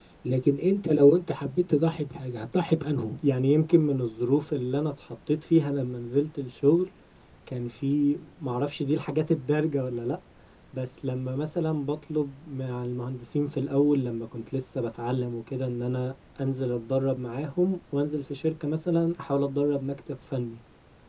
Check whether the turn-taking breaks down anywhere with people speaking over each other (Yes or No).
No